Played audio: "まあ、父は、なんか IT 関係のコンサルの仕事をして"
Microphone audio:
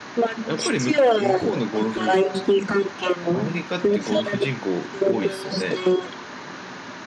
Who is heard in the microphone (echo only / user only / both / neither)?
both